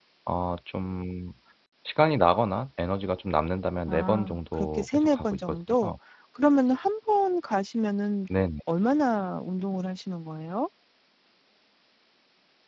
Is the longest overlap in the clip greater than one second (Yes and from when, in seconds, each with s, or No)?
Yes, from 3.9 s